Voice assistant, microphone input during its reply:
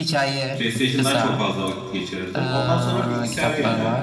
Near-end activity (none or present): present